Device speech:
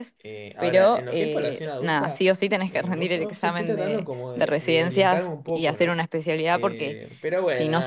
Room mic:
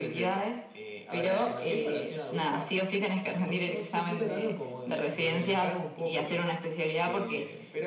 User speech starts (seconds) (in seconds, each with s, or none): none